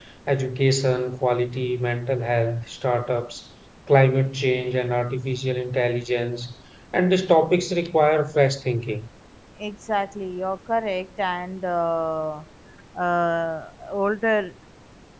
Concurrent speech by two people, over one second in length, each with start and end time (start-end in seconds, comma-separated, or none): none